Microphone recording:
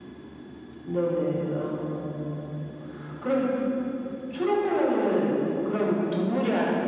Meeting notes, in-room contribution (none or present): none